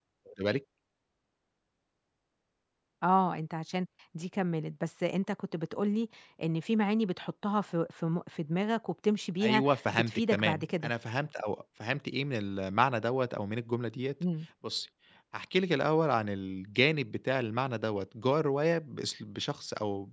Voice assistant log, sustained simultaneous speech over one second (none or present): present